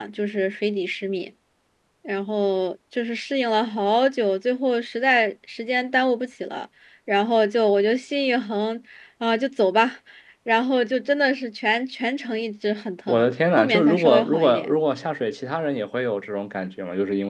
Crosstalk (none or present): present